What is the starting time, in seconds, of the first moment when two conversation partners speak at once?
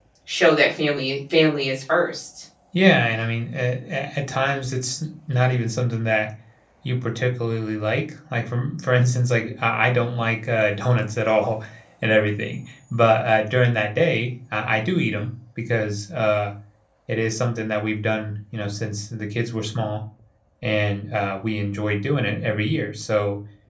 none

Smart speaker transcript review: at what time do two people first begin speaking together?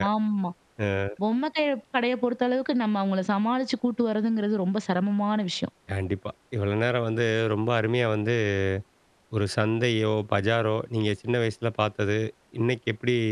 none

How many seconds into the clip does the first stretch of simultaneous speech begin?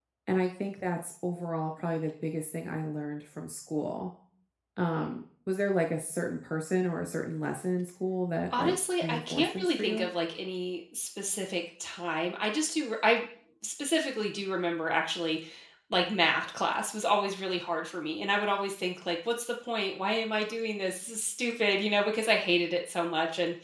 8.5 s

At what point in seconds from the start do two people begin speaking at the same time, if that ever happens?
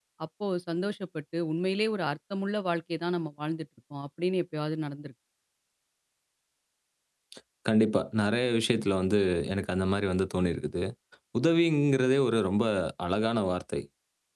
none

